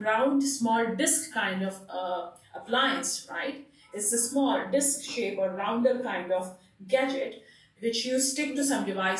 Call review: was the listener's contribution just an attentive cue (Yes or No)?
Yes